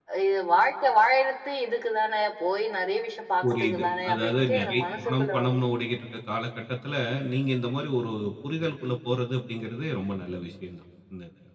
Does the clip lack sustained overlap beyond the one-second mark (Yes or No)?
No